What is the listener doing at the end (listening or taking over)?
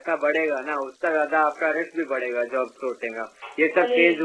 listening